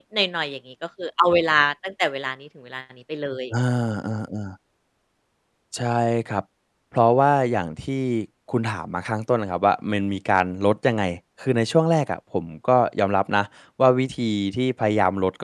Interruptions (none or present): none